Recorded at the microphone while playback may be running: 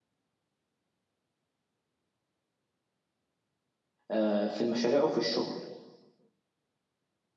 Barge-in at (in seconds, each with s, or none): 4.1 s